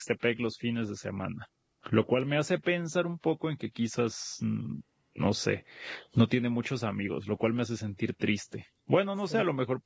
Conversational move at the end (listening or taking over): listening